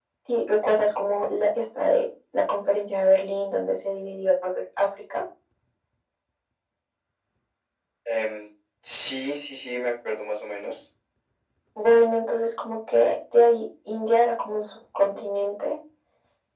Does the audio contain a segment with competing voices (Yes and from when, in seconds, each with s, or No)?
No